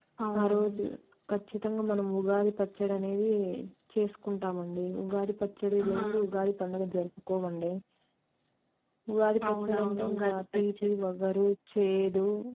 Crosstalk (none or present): present